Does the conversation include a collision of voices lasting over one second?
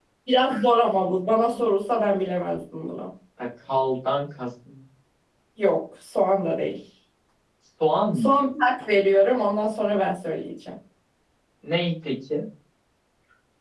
No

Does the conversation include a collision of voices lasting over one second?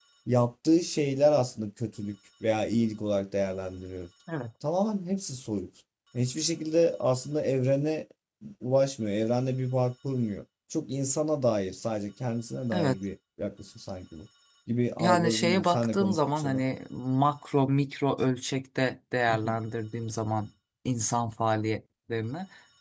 Yes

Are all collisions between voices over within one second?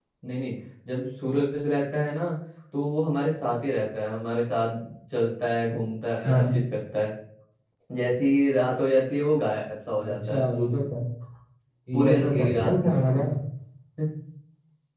No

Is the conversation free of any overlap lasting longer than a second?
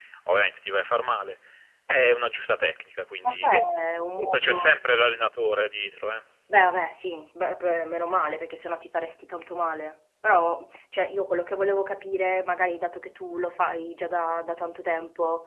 Yes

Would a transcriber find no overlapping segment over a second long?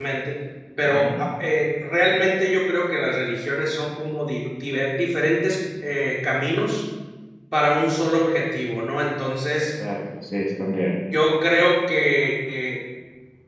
Yes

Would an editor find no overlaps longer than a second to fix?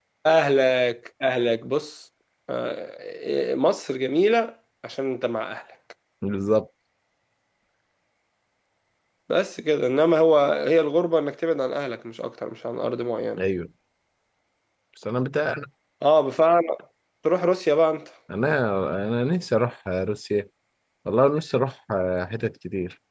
Yes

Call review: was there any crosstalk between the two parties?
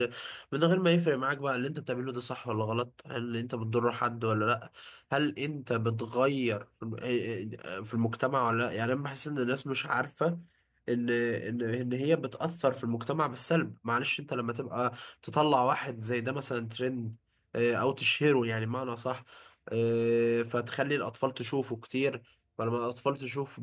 No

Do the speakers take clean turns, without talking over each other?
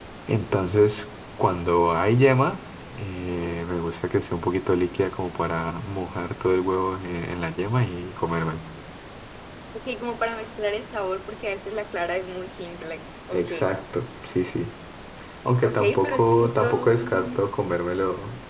No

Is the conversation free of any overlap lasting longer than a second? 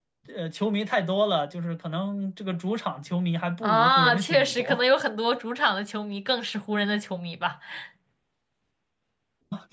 No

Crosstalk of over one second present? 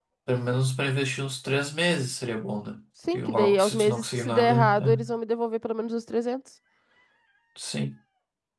Yes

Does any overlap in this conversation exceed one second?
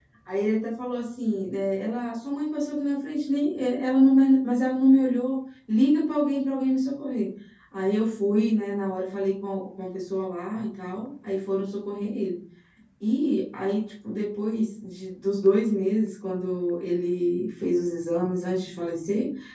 No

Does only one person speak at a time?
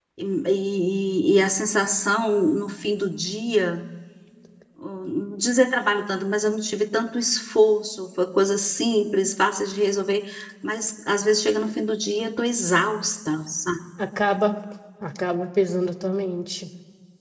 Yes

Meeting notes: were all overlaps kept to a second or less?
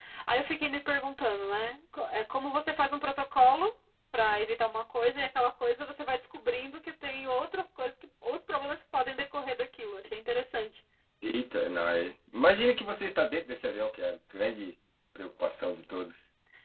Yes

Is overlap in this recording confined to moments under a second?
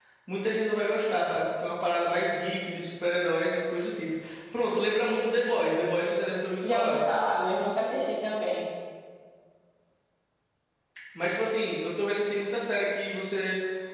Yes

